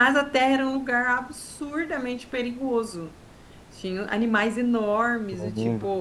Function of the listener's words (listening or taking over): listening